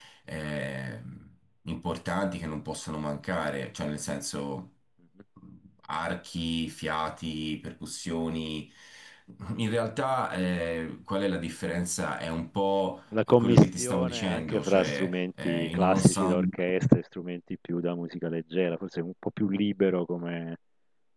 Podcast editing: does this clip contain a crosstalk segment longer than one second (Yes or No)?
Yes